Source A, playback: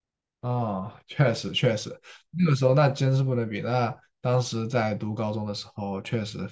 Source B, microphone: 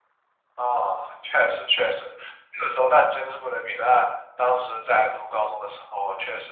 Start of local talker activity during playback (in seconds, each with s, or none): none